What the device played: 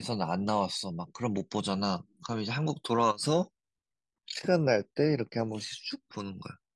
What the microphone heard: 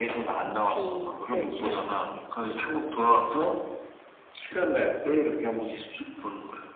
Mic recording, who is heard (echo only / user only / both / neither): both